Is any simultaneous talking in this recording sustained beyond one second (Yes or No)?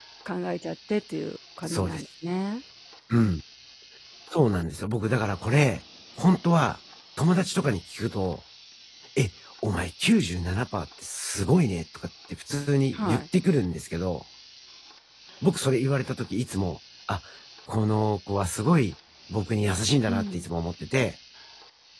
No